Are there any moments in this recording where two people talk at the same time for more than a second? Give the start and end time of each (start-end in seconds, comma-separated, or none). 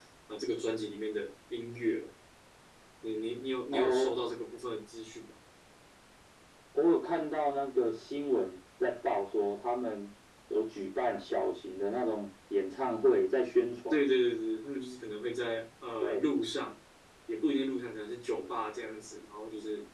none